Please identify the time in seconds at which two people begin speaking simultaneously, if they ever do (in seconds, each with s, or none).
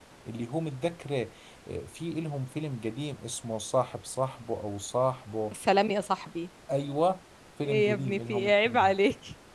7.6 s